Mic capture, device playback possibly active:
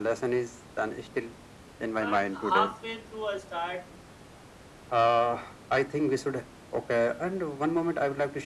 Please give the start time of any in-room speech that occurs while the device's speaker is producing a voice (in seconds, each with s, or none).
2.0 s